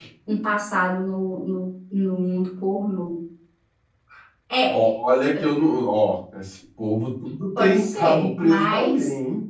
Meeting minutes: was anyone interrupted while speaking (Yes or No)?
Yes